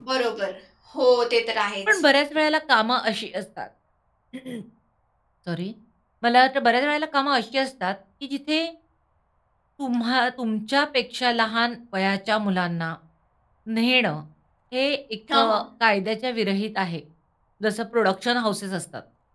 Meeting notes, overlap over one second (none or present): none